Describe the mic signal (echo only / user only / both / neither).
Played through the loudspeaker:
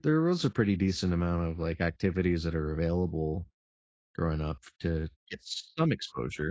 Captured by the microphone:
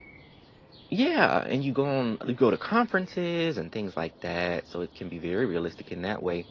user only